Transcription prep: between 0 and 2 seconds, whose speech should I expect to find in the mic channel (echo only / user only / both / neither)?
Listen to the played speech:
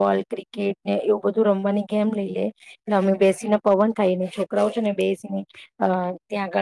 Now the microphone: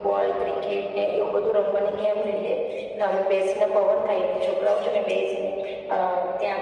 echo only